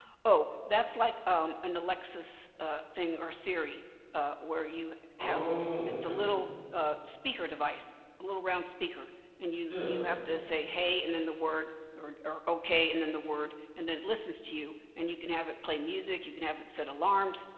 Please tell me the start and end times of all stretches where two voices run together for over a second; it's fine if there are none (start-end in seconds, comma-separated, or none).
none